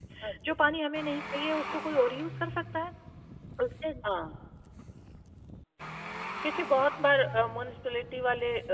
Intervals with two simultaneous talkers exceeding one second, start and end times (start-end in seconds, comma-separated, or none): none